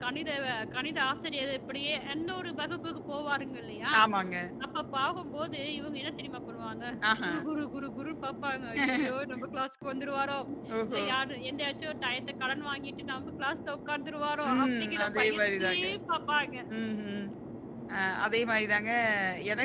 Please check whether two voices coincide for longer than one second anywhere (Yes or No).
Yes